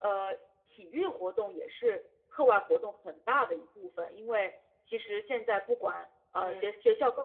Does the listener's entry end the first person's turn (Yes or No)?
No